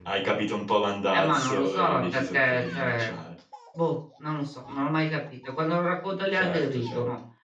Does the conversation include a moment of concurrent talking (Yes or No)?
Yes